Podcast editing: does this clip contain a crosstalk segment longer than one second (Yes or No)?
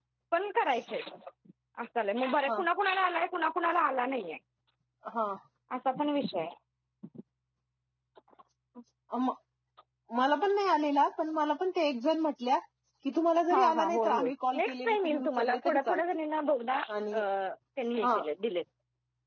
Yes